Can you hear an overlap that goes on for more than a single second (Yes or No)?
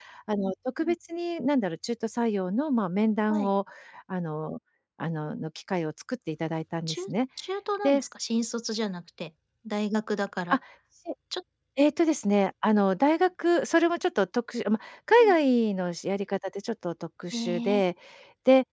No